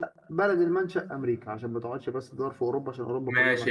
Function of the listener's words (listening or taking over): taking over